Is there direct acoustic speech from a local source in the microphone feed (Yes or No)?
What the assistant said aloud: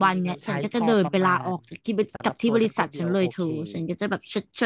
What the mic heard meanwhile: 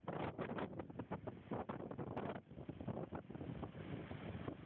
No